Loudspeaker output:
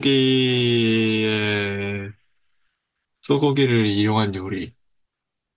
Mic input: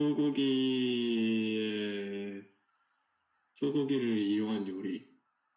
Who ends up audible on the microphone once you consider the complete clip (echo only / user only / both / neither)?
echo only